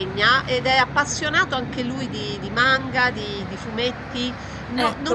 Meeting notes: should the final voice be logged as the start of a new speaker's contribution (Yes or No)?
No